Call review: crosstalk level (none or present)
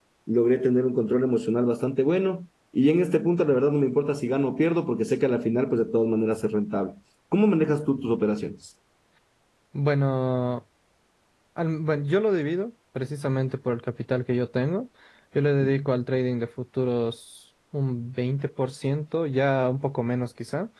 none